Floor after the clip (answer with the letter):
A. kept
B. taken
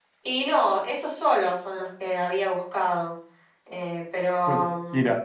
B